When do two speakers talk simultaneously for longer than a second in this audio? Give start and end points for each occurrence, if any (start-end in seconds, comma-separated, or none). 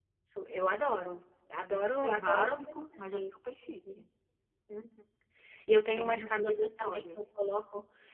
1.7-3.3, 6.0-7.2